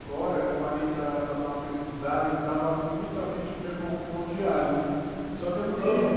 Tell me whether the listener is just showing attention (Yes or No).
Yes